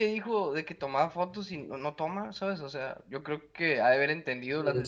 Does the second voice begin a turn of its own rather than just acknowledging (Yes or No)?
Yes